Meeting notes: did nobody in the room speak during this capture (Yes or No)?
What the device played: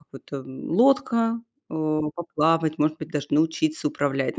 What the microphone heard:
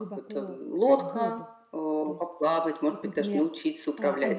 No